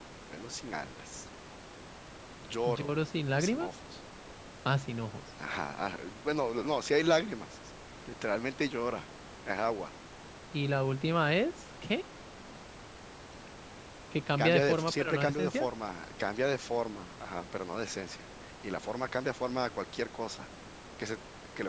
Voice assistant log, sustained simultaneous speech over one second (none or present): present